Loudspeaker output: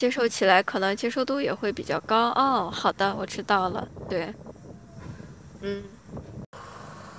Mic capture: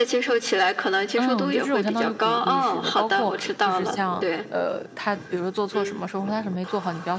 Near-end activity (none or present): present